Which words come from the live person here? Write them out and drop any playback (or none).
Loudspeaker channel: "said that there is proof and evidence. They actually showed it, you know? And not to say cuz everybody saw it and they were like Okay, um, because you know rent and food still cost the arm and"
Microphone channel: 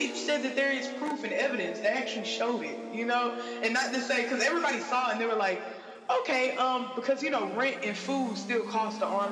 none